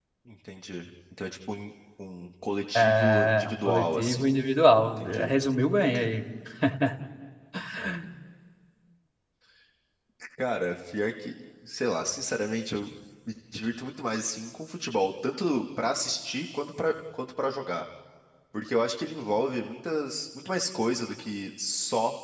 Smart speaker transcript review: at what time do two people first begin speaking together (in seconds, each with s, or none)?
2.8 s